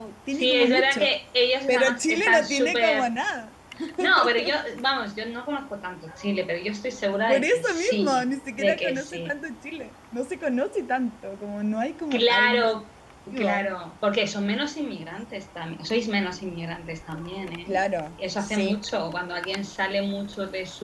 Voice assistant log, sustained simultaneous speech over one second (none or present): present